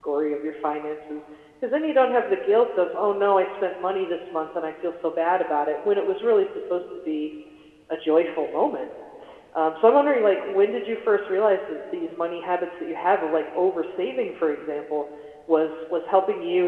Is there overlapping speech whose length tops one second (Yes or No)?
No